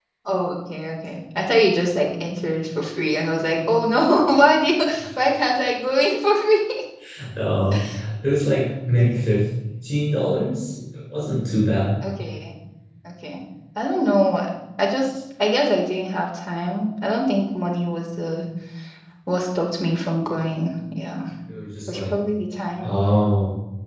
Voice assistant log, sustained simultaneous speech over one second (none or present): none